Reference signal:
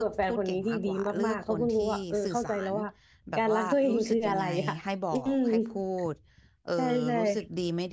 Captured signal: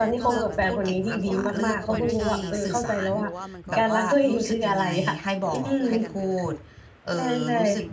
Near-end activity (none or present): present